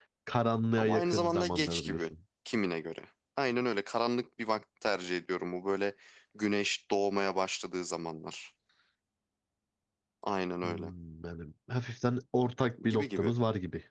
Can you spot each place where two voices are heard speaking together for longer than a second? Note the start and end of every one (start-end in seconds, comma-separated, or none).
0.8-2.0